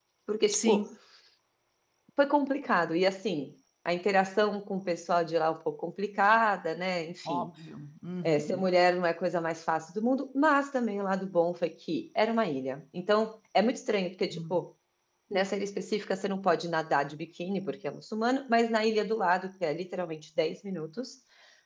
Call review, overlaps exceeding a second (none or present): none